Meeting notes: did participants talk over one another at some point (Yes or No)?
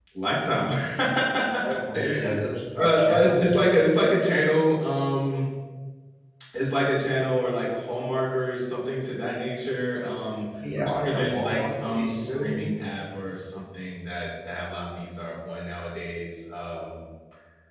Yes